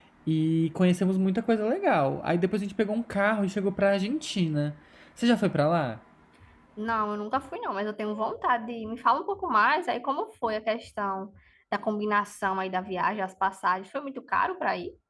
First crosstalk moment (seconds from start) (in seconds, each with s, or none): none